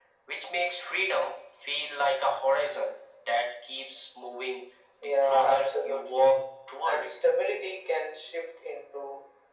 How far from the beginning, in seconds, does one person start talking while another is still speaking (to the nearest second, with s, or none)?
5 s